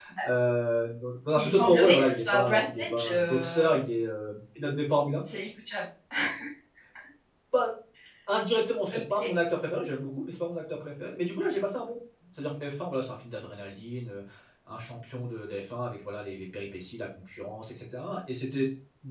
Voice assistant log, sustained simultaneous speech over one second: present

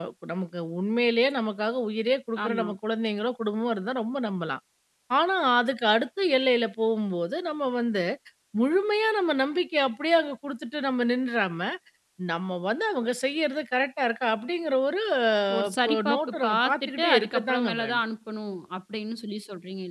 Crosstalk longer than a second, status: present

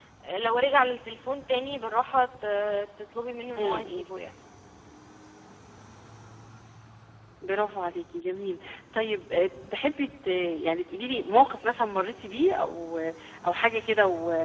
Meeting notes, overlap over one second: none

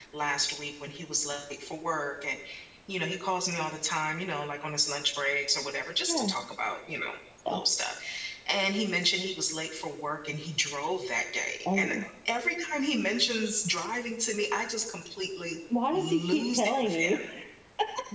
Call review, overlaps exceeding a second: present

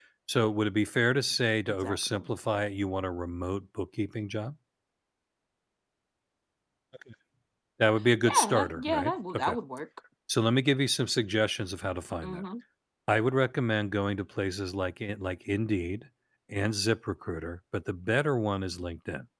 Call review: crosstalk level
present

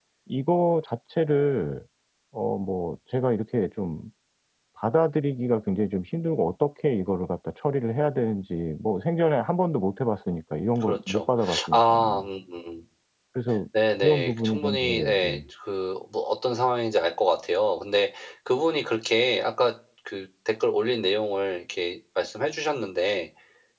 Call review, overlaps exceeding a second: present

